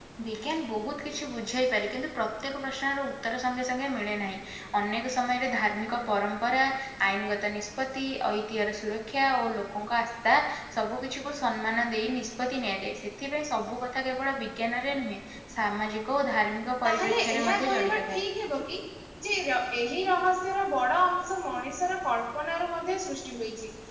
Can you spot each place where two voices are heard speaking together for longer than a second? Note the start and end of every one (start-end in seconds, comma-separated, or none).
16.8-18.2